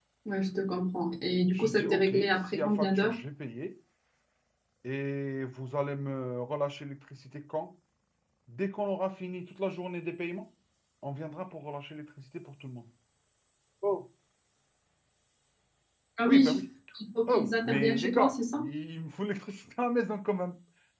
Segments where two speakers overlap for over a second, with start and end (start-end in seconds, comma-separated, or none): 1.5-3.1, 17.3-18.6